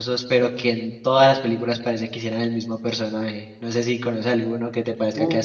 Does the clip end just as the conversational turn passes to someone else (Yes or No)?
Yes